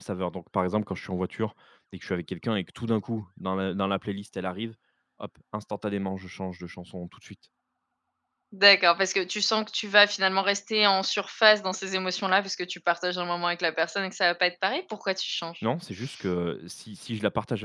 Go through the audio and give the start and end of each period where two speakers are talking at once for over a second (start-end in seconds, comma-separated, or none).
none